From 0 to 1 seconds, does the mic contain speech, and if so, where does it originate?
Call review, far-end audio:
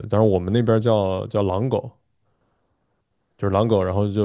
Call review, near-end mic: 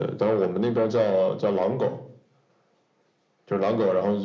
echo only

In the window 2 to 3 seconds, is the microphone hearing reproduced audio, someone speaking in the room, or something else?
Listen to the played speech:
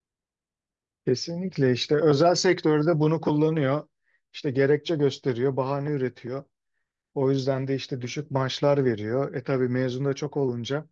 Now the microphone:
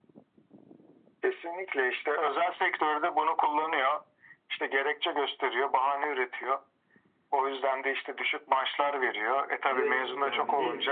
echo only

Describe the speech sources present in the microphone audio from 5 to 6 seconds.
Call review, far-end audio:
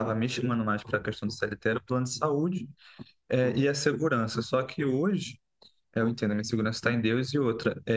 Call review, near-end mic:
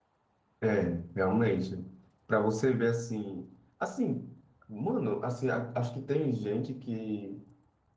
user only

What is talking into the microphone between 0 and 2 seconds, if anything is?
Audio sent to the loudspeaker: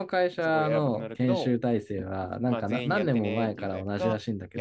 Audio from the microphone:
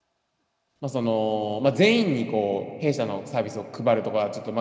user only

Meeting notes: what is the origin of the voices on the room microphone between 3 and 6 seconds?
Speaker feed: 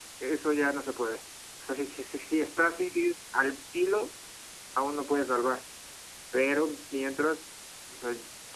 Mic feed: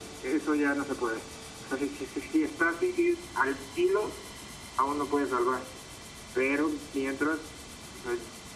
echo only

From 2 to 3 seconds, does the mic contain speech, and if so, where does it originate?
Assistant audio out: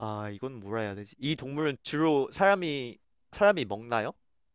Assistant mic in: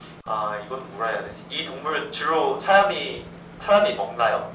echo only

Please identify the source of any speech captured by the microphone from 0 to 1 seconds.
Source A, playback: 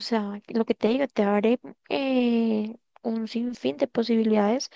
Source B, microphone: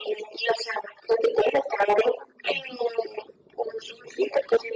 echo only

